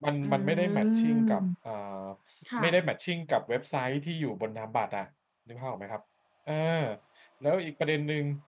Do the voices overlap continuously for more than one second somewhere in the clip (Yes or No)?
Yes